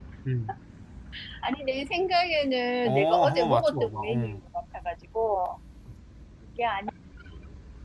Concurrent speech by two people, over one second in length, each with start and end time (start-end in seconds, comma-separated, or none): 2.8-4.4